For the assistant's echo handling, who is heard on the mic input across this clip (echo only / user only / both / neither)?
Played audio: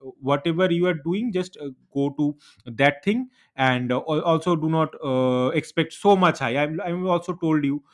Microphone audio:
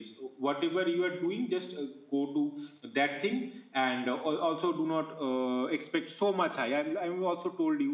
echo only